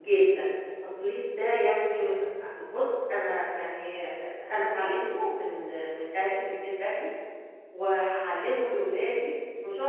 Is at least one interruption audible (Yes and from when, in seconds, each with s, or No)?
No